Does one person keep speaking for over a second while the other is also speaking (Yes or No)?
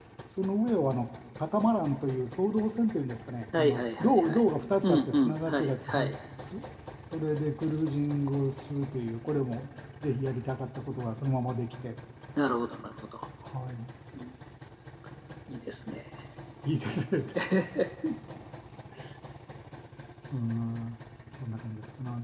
Yes